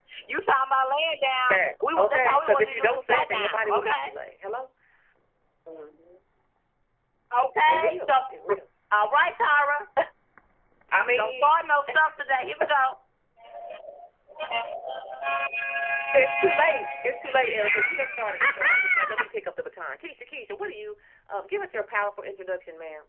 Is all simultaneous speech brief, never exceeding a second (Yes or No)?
No